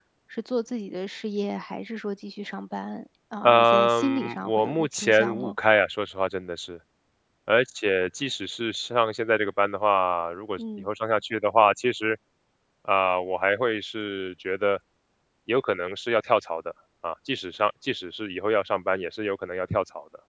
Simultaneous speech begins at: 3 s

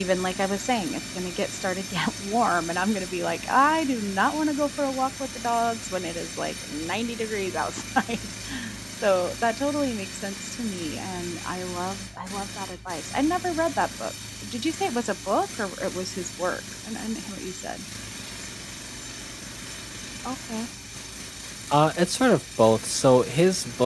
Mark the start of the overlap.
none

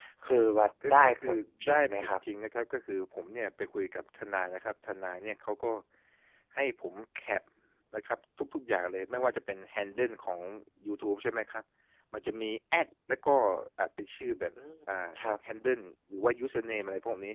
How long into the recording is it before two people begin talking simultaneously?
1 s

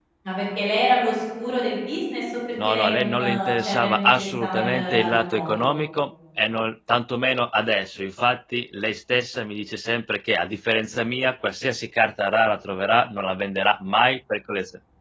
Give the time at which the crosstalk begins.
3 s

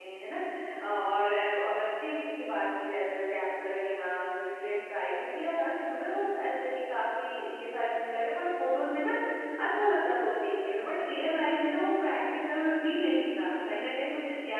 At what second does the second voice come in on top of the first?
none

